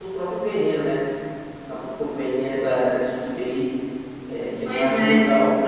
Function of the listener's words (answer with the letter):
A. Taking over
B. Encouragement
A